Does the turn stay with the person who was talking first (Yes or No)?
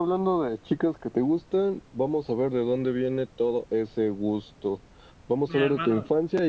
Yes